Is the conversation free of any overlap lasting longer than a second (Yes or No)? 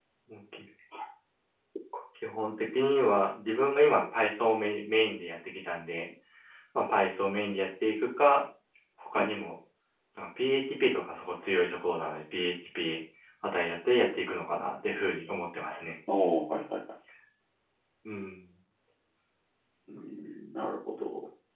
Yes